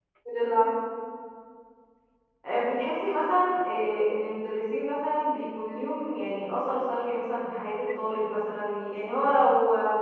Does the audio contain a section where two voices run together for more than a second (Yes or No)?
No